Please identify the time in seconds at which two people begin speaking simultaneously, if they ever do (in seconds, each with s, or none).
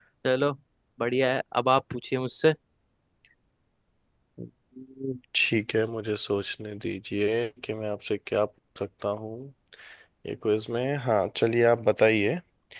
none